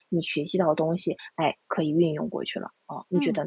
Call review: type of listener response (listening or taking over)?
taking over